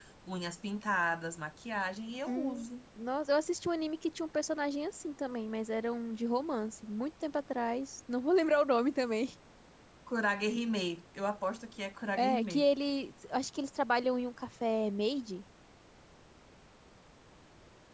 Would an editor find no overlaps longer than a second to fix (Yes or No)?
Yes